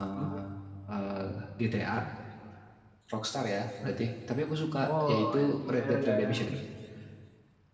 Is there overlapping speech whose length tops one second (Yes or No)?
Yes